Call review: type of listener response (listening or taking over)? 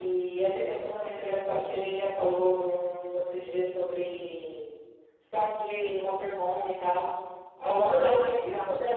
listening